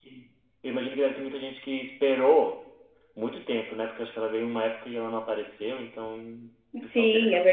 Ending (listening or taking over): taking over